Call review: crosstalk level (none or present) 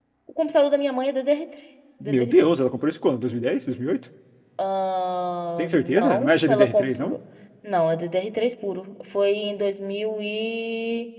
present